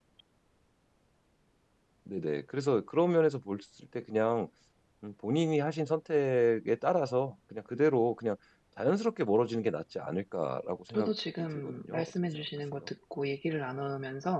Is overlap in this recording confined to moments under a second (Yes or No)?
No